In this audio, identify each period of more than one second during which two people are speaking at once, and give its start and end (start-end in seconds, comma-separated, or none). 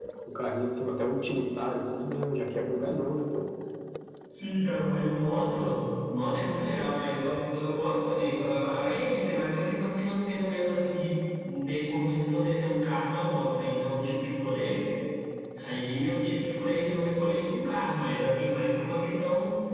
none